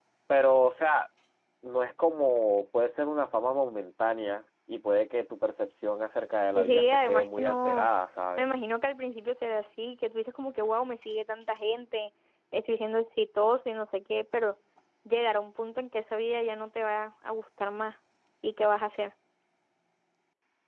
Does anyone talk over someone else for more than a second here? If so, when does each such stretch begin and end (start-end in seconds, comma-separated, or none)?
6.5-7.9